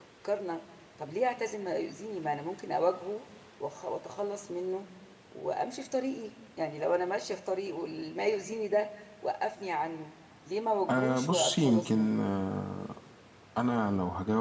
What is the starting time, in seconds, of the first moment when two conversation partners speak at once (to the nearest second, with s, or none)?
11 s